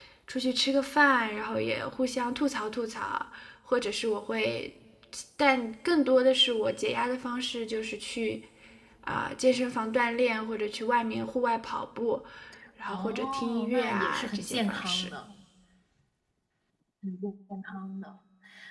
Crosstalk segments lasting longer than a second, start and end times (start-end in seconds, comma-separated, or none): 12.9-15.1